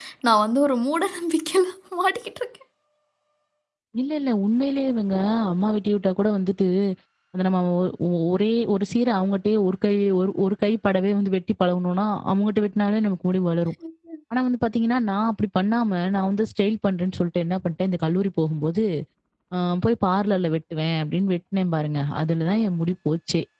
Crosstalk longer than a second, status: none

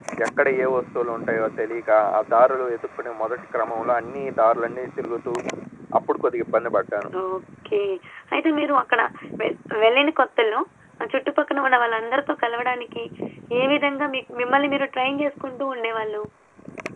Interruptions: none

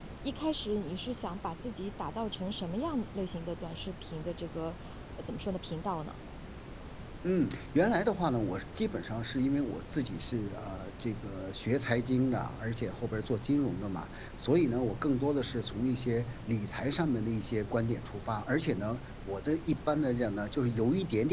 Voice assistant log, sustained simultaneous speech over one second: none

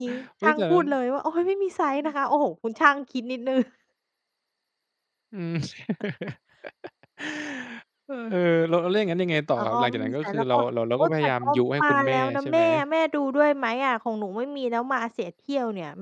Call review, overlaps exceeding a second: present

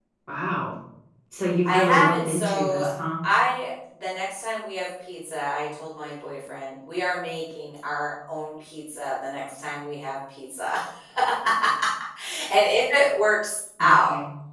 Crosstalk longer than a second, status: present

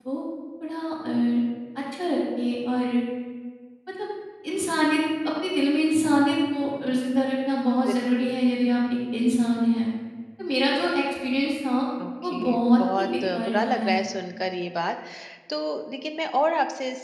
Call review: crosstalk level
present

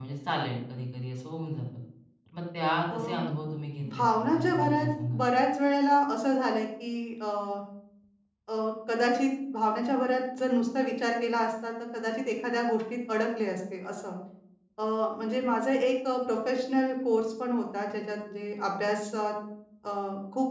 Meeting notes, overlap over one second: present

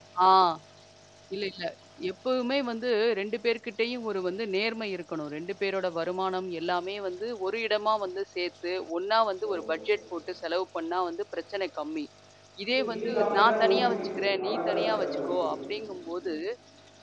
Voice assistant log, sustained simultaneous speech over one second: present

